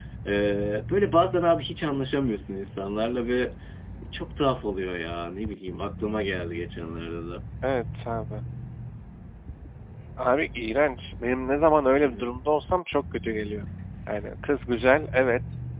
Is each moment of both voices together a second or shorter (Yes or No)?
Yes